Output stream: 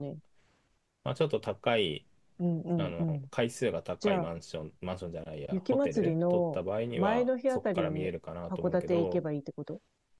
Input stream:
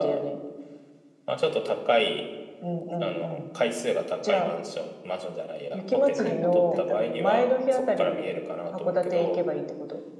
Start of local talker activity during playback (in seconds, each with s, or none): 6.1 s